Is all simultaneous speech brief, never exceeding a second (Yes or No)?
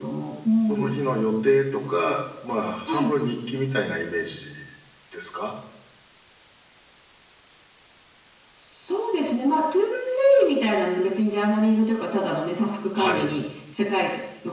Yes